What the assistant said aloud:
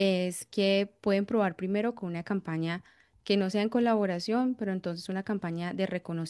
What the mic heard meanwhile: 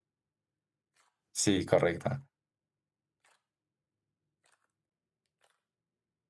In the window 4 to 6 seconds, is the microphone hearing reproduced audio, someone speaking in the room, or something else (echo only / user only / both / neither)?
neither